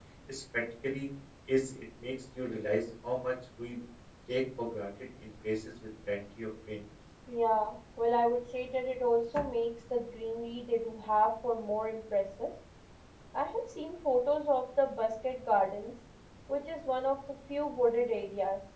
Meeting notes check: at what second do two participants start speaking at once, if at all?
none

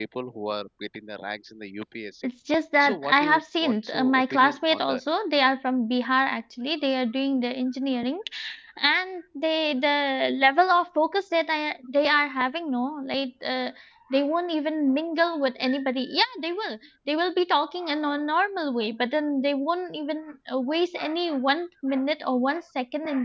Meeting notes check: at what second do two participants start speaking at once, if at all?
2.8 s

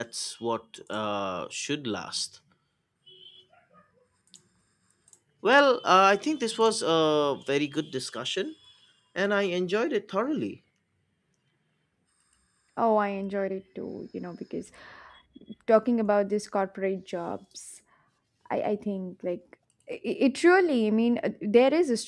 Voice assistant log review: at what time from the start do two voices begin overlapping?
none

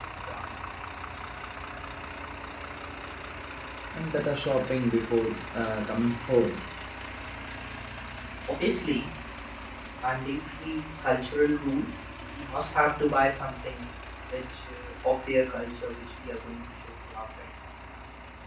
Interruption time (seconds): none

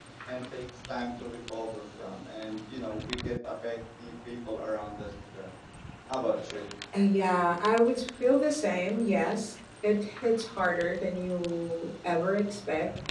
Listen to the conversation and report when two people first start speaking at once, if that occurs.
none

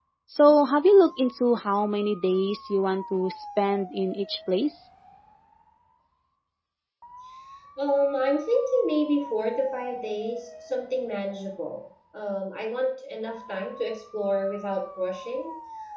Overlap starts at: none

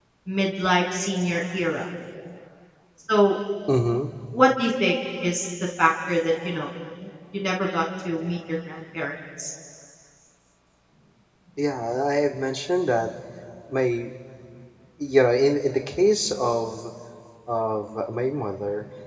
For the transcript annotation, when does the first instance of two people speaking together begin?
none

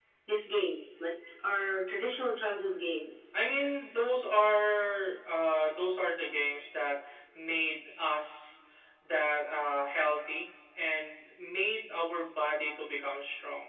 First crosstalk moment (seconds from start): none

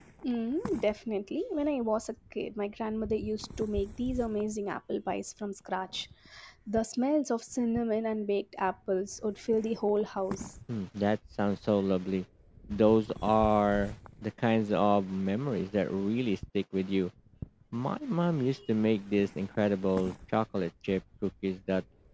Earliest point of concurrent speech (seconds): none

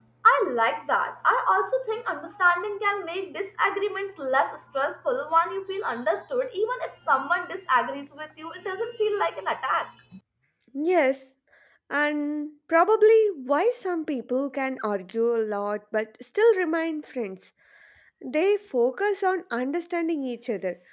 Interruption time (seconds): none

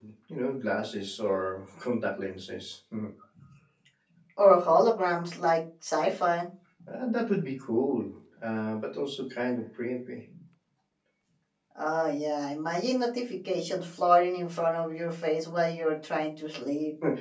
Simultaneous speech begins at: none

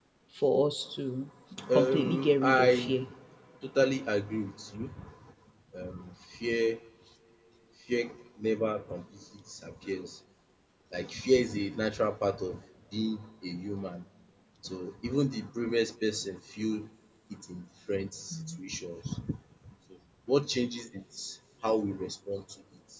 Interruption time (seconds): 1.7 s

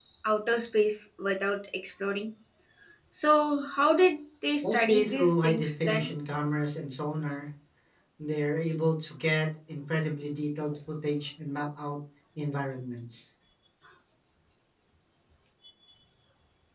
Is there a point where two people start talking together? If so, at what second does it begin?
4.6 s

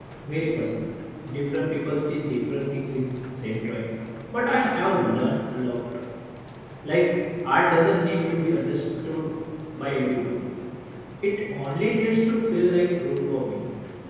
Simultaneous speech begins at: none

